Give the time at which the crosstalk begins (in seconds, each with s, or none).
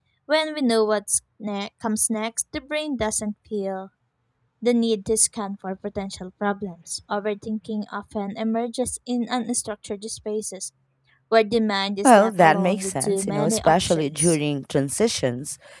12.0 s